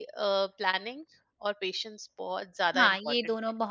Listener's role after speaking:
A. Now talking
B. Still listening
A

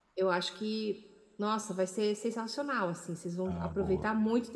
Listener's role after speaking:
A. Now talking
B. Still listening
B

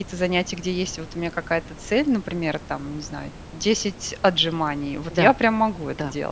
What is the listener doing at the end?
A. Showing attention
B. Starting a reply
B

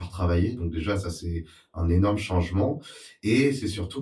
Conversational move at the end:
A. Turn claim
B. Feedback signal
B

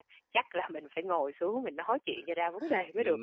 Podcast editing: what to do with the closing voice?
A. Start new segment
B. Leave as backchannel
A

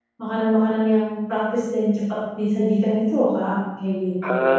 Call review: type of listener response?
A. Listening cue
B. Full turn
B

